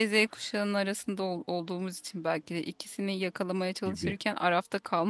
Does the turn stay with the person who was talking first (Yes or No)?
Yes